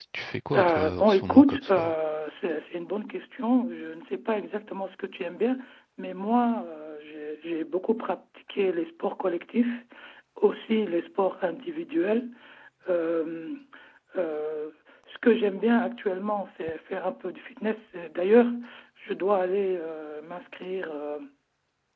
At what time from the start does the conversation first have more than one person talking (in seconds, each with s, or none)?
0.6 s